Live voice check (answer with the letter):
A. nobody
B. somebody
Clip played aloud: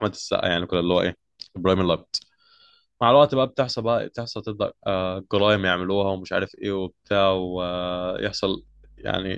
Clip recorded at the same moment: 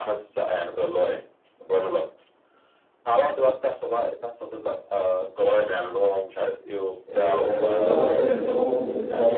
B